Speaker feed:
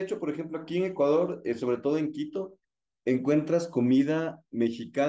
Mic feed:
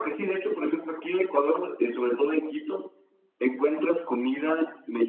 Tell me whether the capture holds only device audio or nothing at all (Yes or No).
Yes